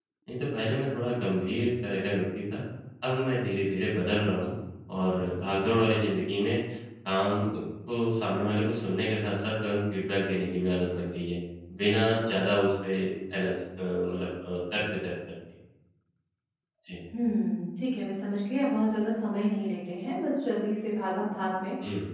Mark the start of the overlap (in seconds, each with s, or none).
none